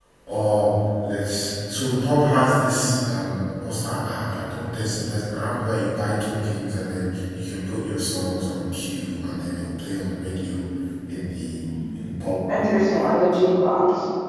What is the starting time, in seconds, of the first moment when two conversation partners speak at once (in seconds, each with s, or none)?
none